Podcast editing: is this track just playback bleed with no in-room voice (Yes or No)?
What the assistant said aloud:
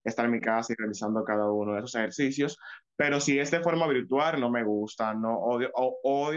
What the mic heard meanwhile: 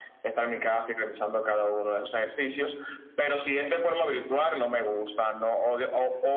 Yes